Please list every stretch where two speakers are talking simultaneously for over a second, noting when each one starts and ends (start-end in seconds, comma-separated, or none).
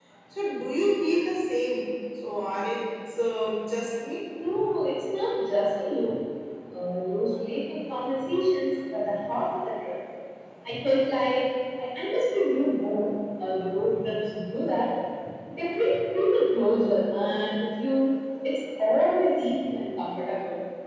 none